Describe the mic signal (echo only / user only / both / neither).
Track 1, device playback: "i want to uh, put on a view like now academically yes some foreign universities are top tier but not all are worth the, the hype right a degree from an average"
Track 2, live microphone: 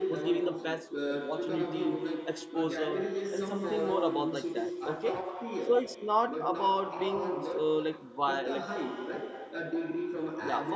both